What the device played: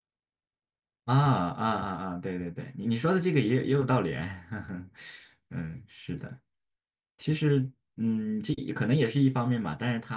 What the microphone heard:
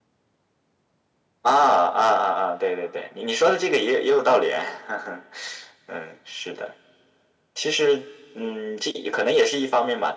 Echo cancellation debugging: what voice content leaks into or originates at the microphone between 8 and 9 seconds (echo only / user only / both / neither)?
echo only